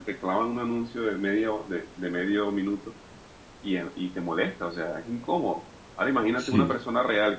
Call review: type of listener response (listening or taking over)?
listening